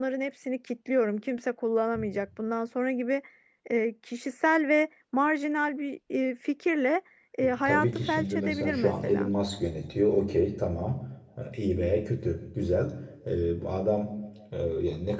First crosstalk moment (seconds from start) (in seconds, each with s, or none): 7.4 s